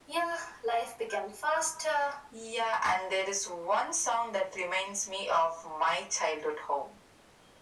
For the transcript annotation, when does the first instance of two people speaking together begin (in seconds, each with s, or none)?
none